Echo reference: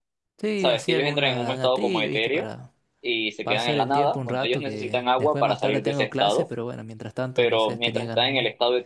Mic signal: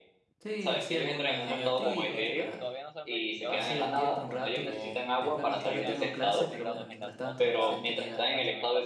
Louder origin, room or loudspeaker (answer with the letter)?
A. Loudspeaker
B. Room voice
A